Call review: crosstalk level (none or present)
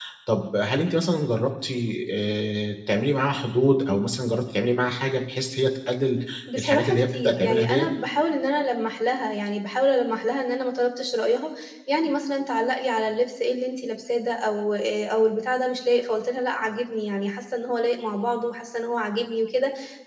present